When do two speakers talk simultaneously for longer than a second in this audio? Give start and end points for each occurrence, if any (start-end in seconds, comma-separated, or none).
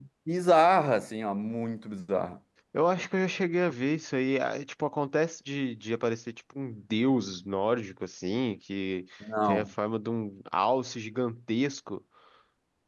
none